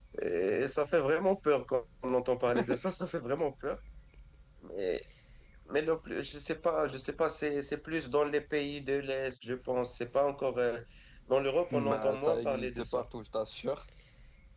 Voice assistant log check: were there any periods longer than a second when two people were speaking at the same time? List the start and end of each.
11.7-13.1

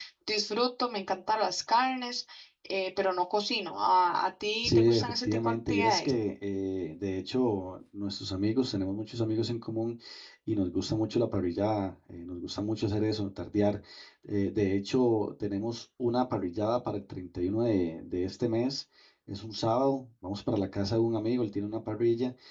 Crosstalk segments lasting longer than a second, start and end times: 4.6-6.1

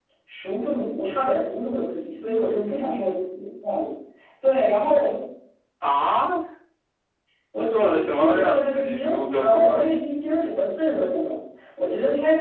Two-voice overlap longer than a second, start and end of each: 7.5-9.8

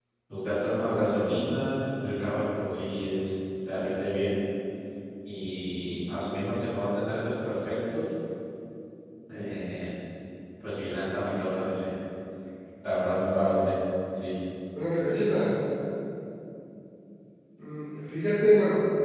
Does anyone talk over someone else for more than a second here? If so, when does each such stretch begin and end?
none

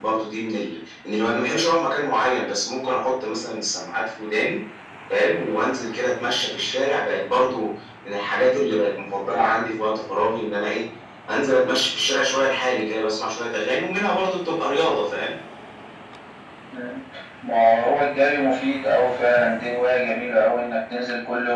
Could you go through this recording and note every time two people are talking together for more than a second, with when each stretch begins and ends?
none

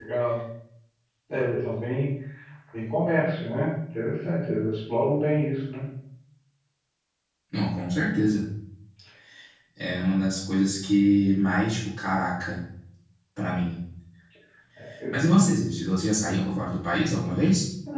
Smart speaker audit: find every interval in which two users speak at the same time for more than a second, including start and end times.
none

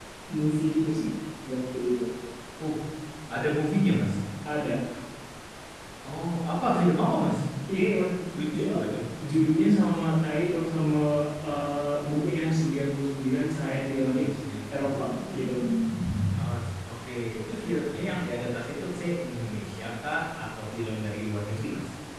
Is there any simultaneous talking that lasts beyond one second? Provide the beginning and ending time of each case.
none

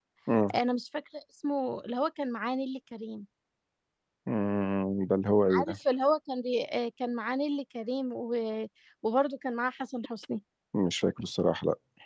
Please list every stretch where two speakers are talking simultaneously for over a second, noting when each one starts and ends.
none

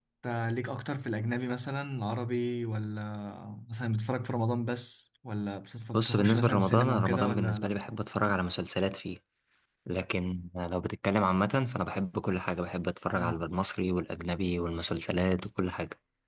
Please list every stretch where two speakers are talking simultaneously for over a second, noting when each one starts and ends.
5.9-7.8

